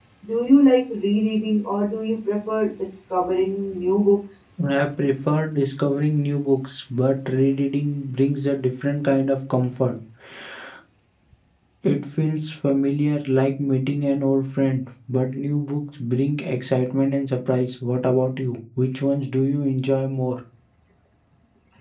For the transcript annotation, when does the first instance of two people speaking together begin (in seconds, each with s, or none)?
none